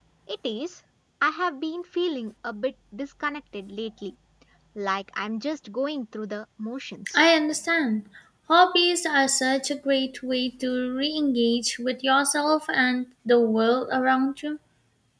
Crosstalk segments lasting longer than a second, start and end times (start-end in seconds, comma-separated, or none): none